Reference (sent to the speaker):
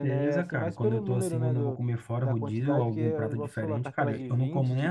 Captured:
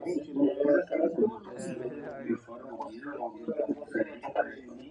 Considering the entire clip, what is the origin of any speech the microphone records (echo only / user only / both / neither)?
both